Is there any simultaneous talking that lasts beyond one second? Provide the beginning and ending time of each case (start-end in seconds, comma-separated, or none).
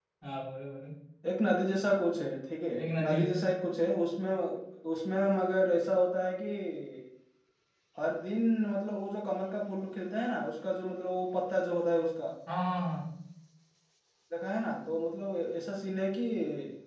none